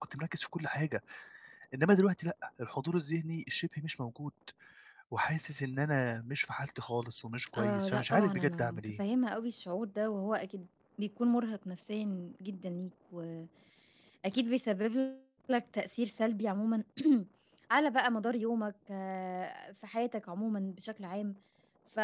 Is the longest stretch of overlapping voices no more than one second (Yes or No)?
No